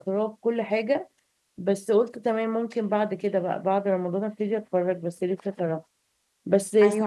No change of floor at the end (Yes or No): No